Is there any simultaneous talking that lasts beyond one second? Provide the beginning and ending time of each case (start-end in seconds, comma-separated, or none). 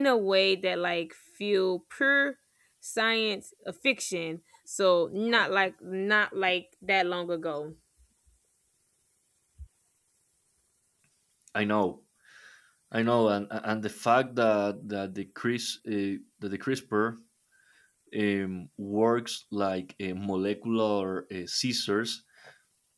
none